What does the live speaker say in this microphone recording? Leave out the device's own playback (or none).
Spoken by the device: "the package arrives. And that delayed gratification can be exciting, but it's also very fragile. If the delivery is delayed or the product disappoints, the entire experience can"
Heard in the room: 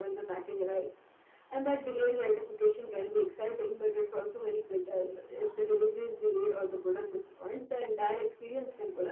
none